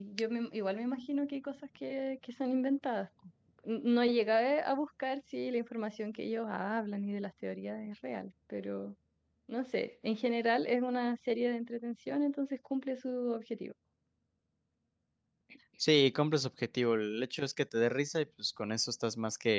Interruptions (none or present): none